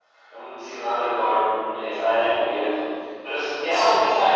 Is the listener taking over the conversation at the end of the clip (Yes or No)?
No